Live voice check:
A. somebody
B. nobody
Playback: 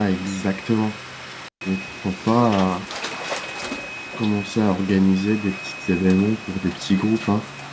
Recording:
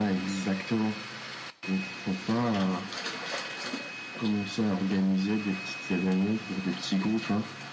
B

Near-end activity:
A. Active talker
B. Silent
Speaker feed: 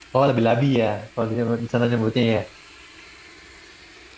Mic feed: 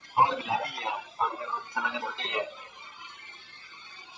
B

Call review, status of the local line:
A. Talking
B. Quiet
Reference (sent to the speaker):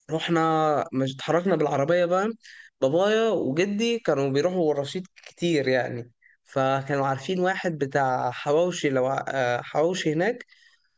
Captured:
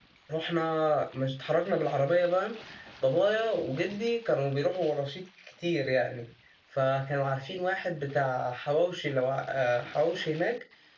B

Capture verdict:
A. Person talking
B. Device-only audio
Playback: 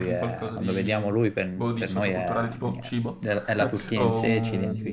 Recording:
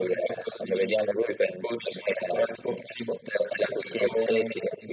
B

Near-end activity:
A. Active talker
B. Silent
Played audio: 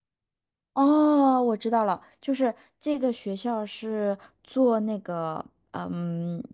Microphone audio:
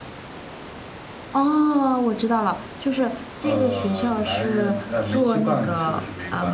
A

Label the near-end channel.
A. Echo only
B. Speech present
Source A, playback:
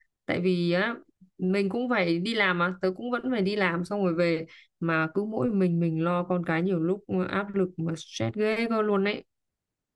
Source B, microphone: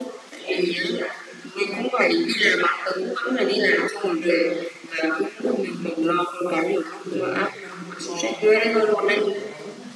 B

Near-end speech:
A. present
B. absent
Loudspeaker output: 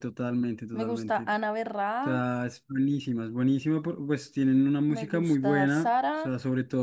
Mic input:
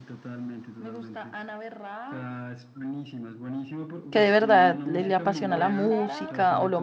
A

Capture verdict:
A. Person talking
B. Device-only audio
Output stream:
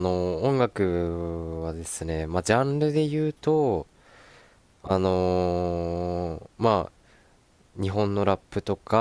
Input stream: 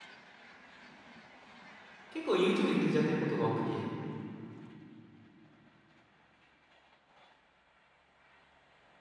A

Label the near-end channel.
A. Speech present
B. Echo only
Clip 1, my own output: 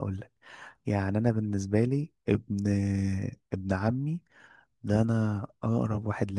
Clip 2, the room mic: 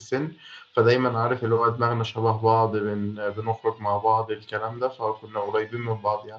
A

